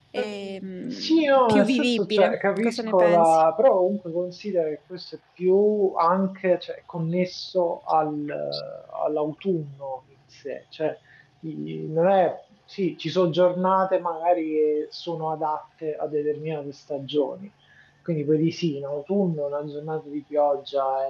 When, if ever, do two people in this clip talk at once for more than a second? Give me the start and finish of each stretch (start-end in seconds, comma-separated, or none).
0.9-3.4